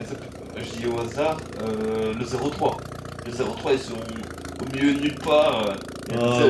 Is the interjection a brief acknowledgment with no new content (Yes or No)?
Yes